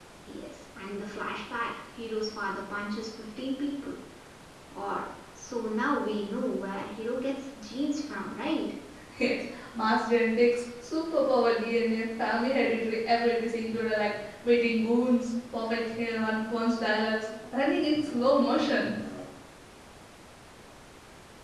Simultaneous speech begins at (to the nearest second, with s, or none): none